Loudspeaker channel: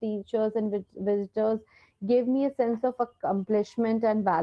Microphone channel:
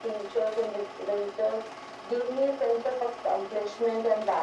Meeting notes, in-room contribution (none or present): none